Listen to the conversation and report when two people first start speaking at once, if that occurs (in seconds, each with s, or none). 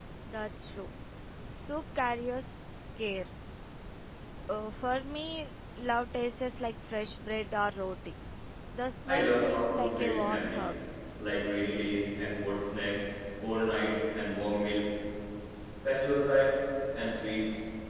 9.1 s